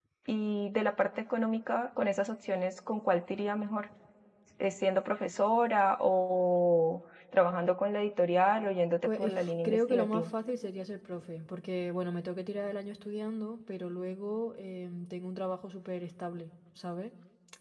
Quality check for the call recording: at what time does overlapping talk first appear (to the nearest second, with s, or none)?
9 s